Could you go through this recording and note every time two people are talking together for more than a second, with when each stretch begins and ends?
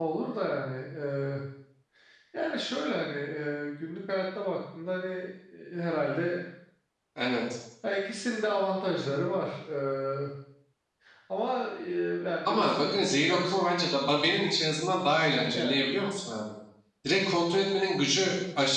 12.5-13.7

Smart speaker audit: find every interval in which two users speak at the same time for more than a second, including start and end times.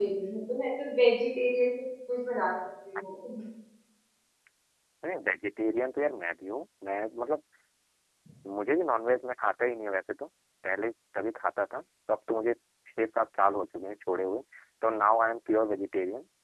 none

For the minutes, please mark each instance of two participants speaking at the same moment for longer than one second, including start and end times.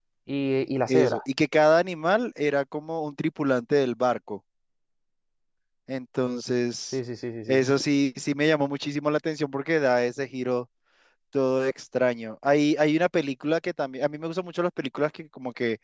none

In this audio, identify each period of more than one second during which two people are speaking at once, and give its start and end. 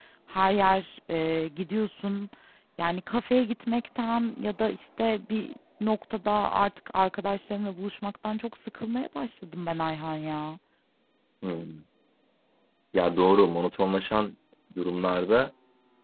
none

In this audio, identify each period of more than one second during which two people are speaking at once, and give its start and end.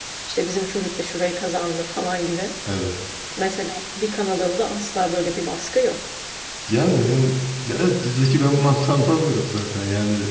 none

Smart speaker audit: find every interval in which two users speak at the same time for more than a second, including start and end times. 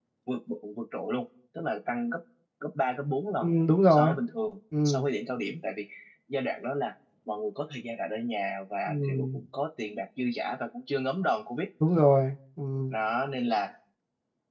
none

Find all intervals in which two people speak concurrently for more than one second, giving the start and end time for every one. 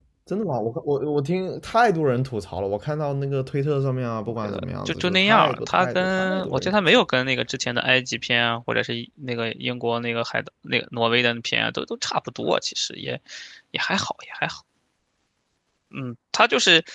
4.4-6.9

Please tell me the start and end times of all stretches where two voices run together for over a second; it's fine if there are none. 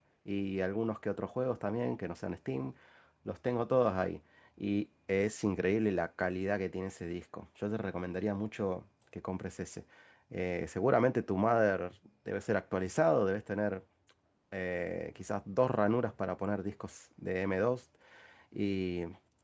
none

